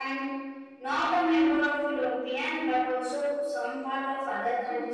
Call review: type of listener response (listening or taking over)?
taking over